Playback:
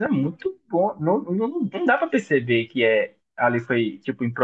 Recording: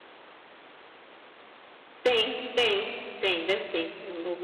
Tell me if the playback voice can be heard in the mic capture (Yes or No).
No